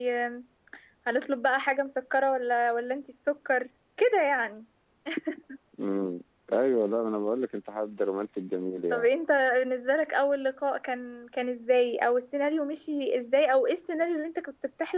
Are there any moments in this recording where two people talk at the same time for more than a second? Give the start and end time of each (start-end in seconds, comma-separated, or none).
none